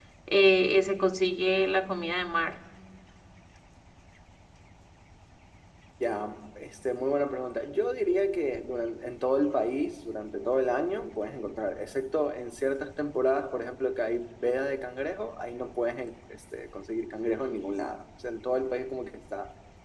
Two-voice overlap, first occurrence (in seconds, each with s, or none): none